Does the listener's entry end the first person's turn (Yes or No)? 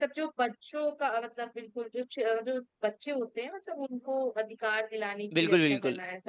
Yes